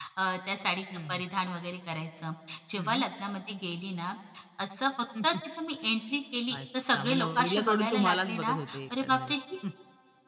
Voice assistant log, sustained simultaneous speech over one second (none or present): present